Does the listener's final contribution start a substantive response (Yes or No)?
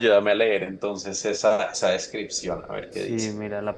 Yes